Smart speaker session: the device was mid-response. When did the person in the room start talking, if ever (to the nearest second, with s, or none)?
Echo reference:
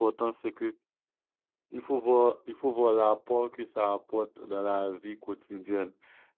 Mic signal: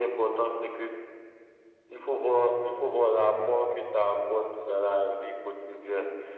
none